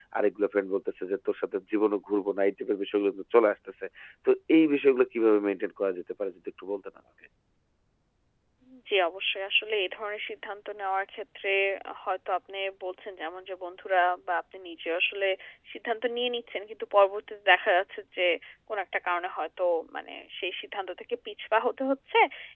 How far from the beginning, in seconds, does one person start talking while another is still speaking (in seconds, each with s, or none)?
none